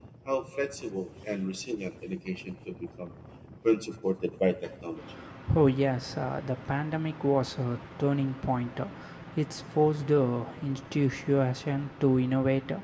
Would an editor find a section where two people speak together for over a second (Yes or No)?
No